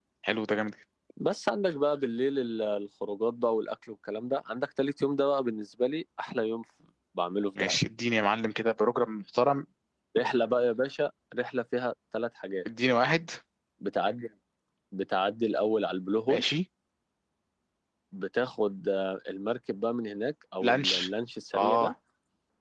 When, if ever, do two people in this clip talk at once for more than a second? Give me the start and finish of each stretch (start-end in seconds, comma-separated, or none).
none